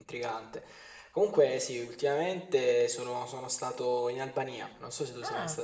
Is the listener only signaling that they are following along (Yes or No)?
No